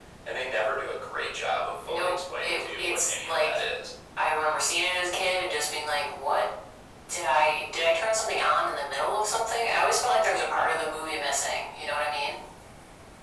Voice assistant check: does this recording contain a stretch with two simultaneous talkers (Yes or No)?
Yes